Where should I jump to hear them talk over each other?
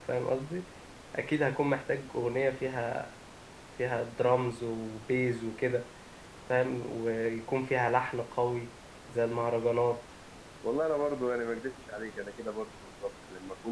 none

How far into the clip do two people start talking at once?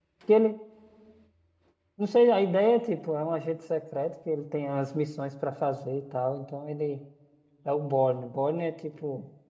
none

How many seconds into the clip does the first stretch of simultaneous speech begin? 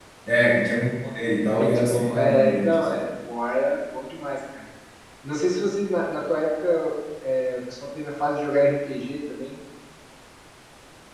1.5 s

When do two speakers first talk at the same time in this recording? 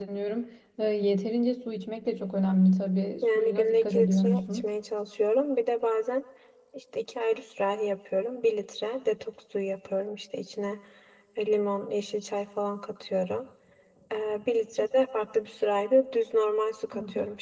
3.2 s

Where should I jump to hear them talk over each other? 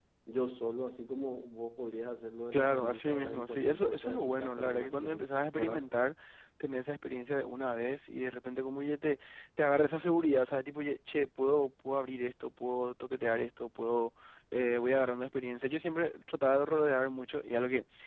2.5 s

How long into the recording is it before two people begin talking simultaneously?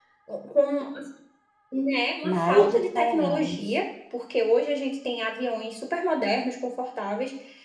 2.2 s

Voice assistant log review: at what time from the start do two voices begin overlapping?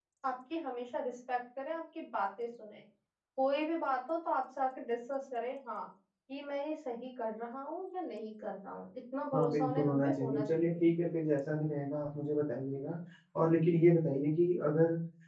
9.3 s

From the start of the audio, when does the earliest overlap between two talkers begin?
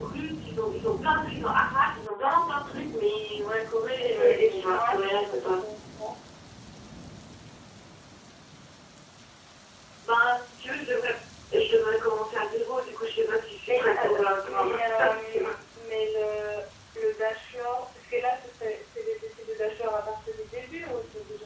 4.0 s

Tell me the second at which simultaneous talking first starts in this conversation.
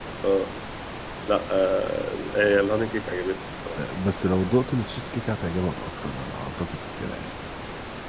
none

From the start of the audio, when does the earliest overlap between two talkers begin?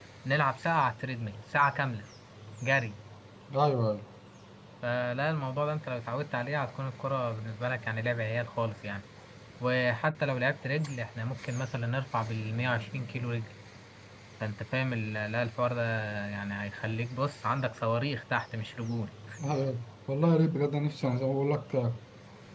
none

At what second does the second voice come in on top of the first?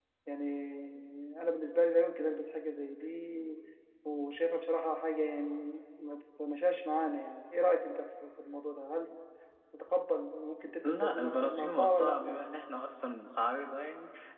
10.8 s

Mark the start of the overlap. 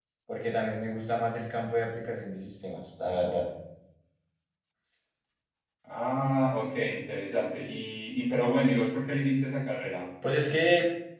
none

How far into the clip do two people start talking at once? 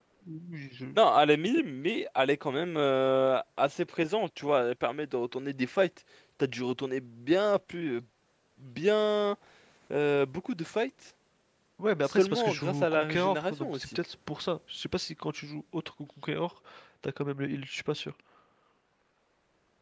12.1 s

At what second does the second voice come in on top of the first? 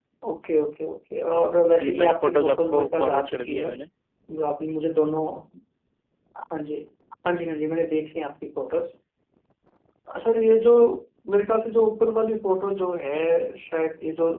1.8 s

